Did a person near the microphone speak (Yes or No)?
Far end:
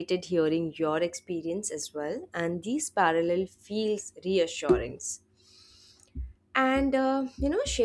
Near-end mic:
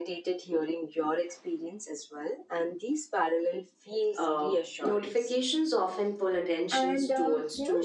Yes